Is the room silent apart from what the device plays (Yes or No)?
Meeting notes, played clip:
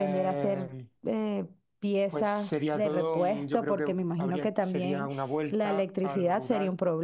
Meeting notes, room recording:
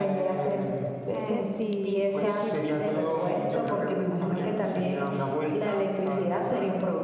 No